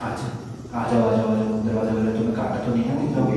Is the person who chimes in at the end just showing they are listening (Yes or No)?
No